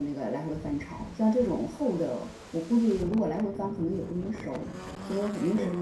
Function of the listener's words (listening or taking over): listening